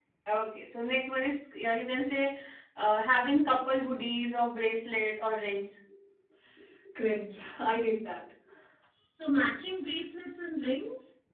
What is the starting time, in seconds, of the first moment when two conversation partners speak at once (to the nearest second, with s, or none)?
none